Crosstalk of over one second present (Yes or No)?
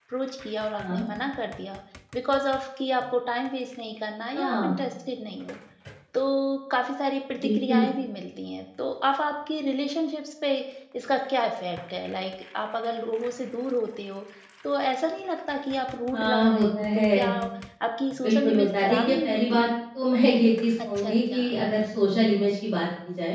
Yes